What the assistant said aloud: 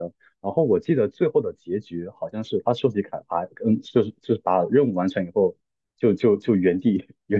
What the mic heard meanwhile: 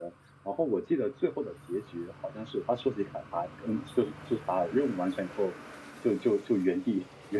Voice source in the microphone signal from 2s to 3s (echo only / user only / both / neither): echo only